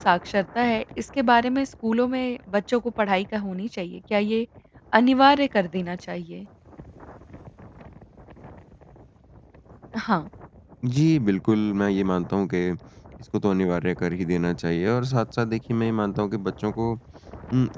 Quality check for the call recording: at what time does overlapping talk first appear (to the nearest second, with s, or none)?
none